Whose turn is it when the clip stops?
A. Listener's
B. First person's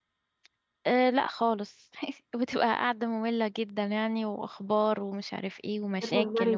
A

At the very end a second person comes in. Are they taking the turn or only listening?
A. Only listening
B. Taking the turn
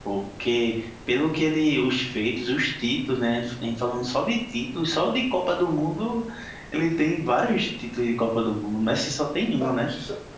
B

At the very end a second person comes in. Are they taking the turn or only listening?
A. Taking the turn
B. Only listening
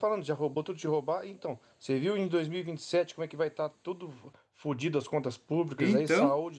B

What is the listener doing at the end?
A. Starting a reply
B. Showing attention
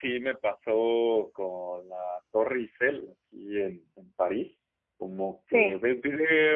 B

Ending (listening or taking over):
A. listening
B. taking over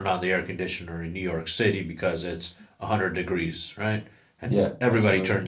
A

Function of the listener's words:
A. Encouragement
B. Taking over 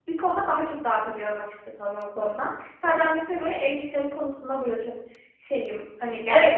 B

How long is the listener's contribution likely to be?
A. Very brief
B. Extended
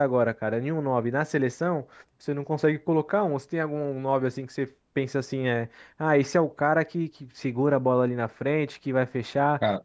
A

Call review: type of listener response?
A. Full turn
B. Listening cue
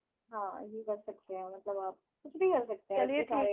A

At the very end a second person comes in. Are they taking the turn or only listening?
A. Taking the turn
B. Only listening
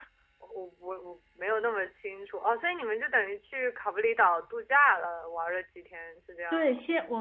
A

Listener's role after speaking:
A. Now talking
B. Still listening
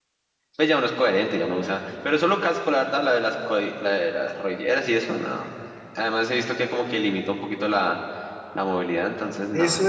A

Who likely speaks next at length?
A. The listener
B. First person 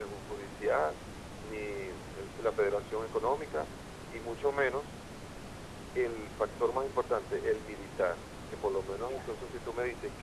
B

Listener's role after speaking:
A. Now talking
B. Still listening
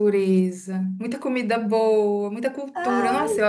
B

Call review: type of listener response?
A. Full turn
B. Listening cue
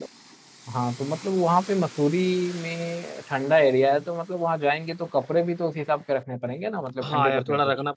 A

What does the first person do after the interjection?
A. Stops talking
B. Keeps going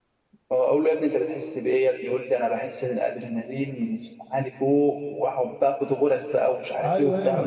A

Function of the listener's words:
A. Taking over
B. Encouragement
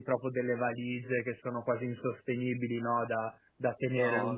B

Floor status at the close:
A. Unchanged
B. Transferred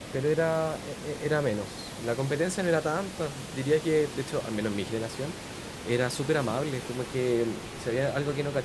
A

